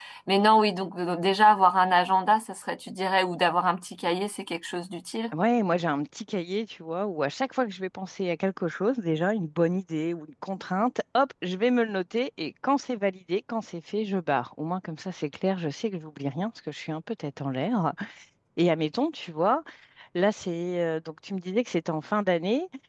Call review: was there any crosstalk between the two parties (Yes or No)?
No